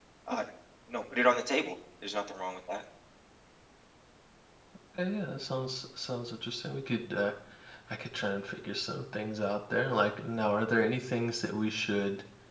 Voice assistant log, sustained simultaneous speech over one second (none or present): none